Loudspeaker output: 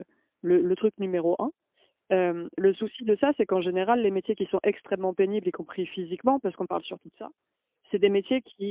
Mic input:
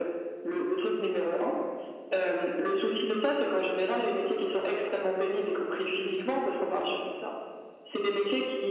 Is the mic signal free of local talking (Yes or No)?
No